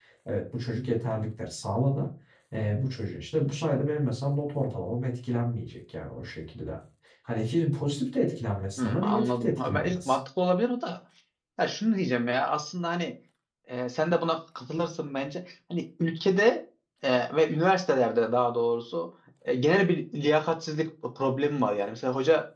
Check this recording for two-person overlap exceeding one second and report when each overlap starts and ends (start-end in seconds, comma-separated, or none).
8.8-10.2